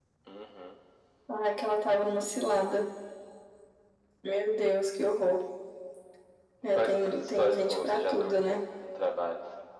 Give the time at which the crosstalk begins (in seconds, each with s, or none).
6.8 s